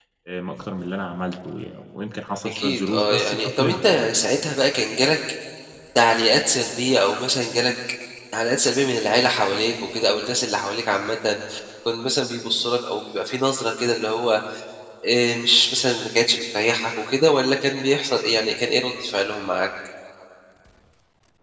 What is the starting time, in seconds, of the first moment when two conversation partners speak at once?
2 s

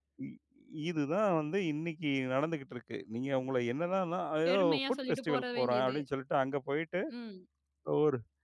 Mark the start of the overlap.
4 s

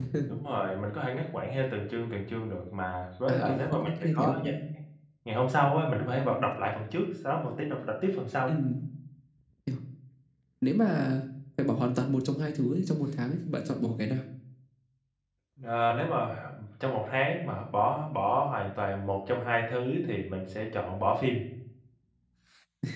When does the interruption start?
3 s

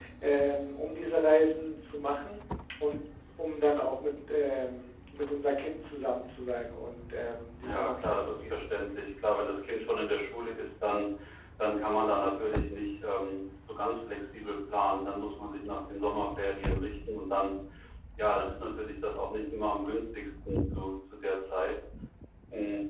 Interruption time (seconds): 8 s

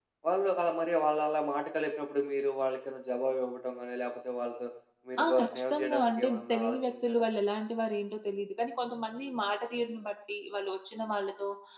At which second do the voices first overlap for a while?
5 s

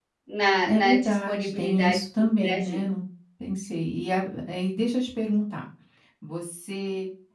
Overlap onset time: 1 s

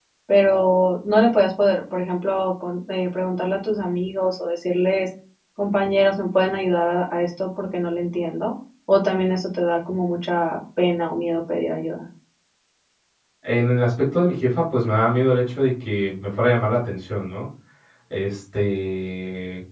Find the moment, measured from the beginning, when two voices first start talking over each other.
none

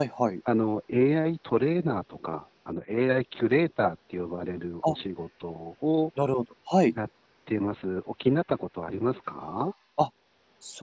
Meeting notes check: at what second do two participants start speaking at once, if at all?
none

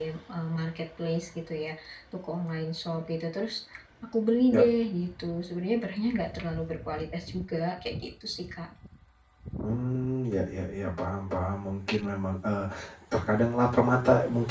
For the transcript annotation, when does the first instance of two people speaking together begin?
none

